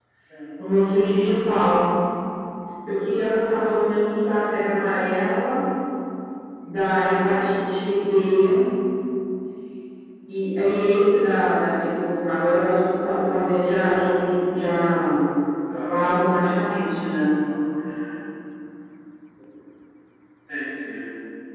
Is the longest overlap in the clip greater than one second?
No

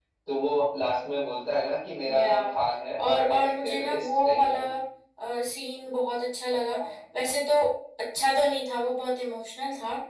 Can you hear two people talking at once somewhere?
Yes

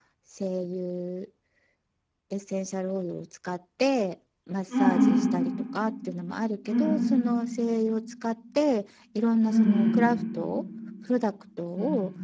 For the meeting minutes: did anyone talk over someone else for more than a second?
No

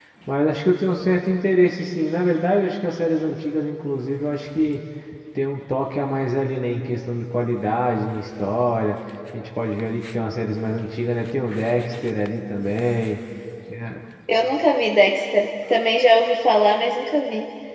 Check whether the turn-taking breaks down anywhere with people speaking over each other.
No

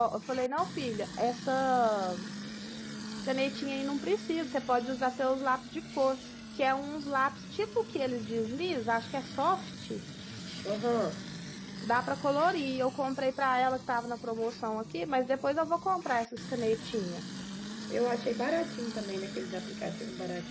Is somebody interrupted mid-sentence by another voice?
No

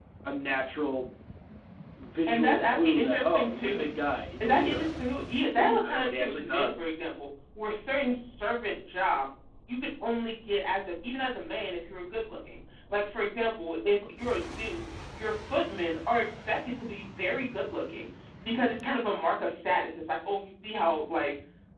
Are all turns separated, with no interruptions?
No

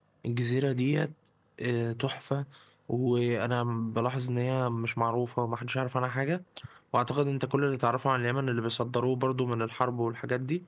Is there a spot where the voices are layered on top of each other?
No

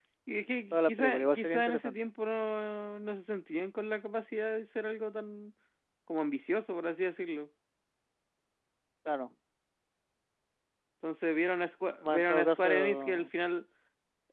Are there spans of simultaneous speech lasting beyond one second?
Yes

